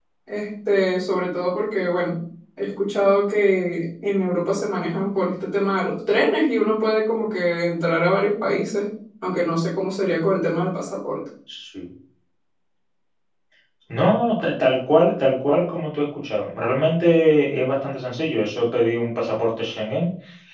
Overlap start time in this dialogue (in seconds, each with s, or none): none